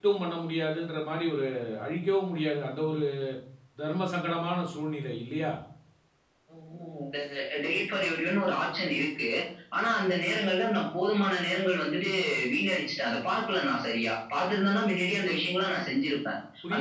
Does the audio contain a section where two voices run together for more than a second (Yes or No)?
No